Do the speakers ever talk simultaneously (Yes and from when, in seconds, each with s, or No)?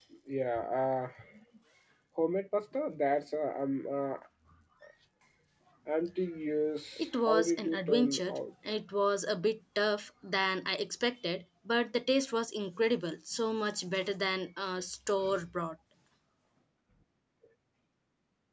Yes, from 7.0 s